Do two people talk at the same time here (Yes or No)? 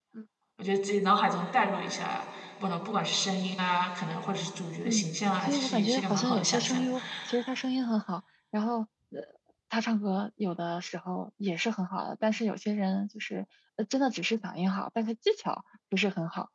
Yes